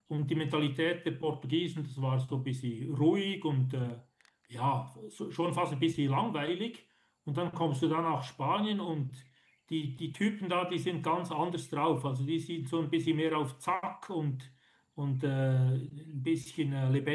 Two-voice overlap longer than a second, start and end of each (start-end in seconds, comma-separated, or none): none